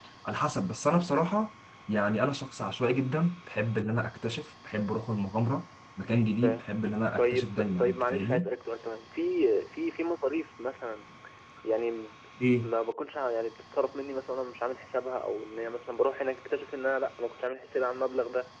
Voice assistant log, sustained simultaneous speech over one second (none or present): present